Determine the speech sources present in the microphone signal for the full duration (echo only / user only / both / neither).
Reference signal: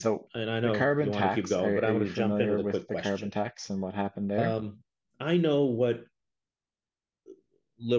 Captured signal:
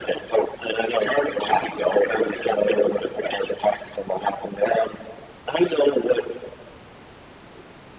echo only